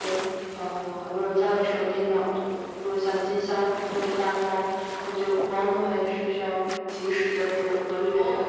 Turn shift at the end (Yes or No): Yes